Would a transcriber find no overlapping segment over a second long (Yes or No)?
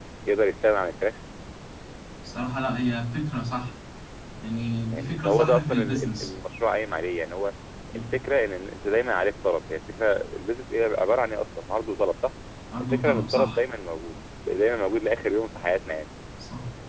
No